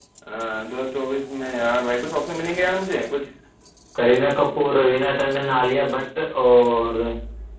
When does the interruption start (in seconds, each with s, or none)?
none